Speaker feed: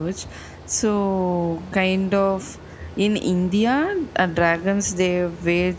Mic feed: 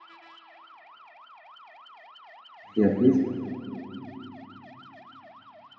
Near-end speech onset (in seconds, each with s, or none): 2.8 s